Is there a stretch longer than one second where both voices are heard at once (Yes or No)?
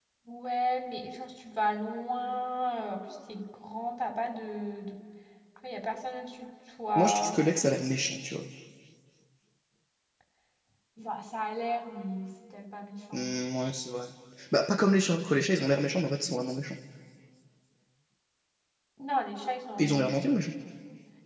No